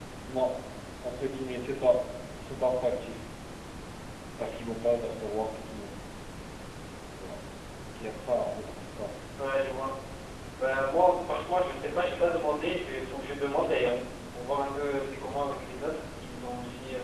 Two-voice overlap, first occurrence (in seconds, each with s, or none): none